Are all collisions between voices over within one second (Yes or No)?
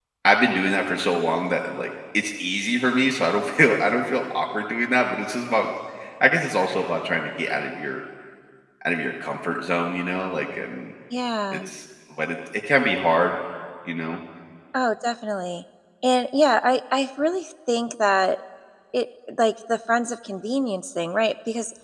Yes